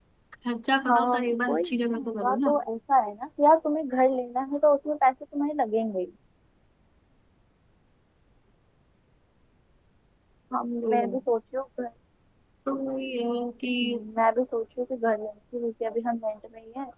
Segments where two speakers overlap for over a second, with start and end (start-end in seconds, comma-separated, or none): 0.9-2.6